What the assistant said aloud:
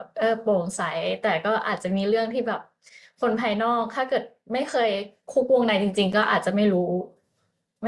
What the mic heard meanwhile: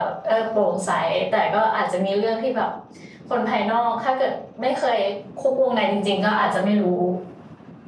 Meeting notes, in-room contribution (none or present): none